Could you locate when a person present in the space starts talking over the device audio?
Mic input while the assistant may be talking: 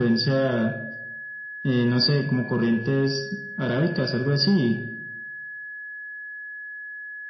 none

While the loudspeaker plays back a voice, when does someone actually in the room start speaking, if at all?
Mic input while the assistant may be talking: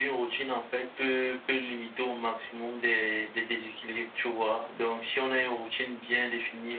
none

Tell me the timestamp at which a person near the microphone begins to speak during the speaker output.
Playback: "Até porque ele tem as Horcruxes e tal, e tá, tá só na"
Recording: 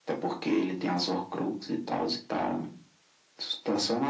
none

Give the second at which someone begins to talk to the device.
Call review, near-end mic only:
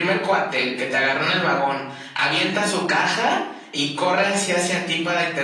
none

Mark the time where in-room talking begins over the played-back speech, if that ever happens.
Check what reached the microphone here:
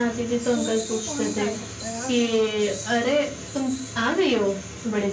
1 s

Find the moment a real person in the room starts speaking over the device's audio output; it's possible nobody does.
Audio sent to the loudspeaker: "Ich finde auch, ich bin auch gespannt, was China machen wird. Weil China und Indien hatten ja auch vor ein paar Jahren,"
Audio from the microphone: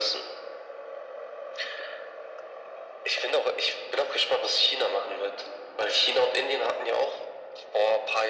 none

